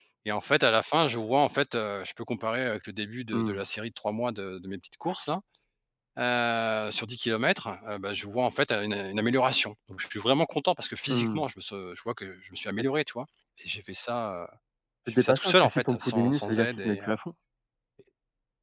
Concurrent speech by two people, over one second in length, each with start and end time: 15.1-17.1

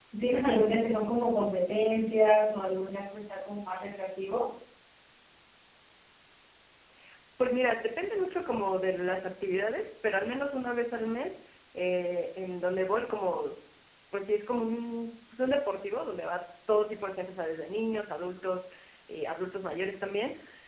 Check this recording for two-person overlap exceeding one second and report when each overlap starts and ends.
none

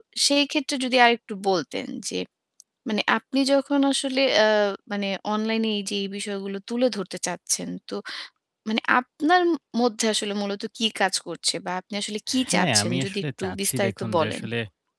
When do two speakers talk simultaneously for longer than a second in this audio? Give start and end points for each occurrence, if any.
12.5-14.4

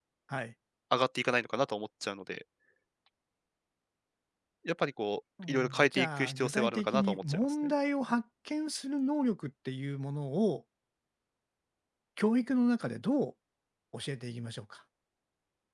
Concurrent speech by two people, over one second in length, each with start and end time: 5.5-7.5

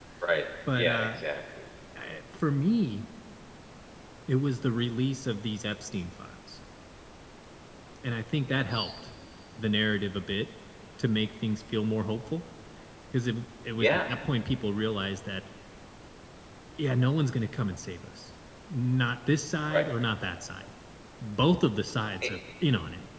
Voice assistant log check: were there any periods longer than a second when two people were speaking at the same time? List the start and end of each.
none

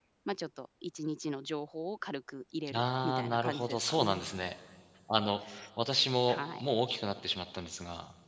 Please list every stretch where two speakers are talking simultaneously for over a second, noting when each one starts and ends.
2.7-4.2

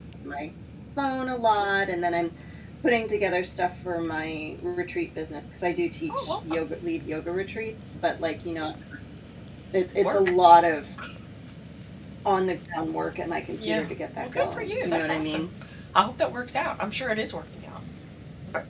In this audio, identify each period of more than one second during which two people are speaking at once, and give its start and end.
13.7-15.5

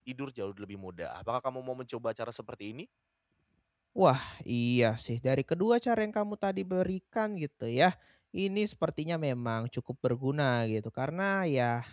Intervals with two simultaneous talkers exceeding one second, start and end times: none

